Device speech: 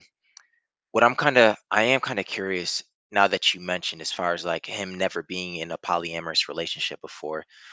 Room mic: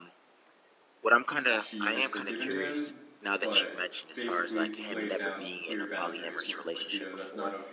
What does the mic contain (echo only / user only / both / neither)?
both